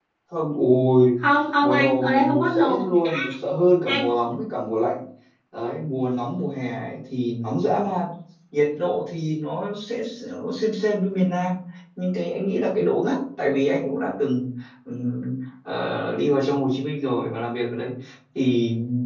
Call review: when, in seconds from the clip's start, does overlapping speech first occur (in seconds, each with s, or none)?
1.6 s